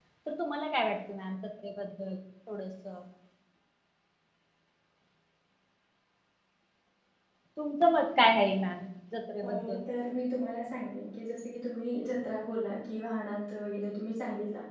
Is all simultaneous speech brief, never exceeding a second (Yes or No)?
Yes